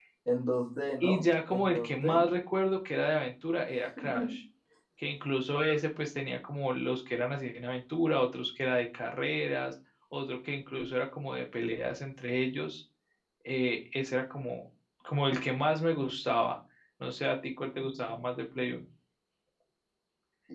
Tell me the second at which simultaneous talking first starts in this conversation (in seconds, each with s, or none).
1.0 s